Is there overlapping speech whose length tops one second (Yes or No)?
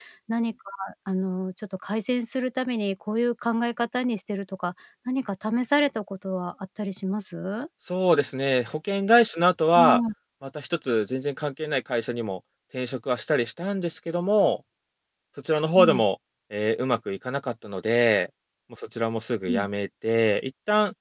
No